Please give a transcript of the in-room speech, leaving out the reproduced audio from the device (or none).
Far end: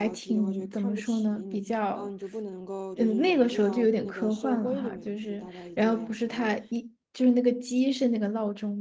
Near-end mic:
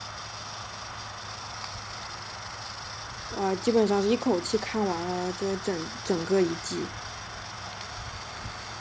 啊、基本上是一口气看完了这整整个一季。